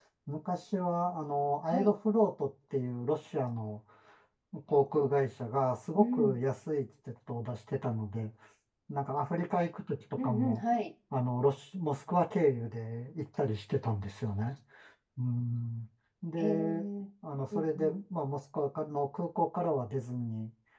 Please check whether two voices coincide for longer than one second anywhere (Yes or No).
No